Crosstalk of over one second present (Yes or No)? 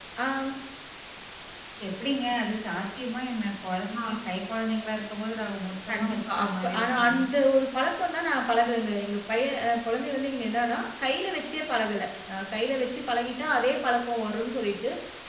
Yes